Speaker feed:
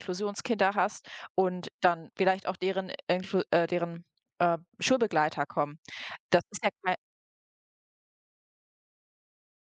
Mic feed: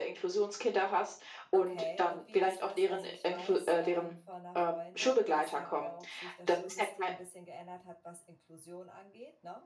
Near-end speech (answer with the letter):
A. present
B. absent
A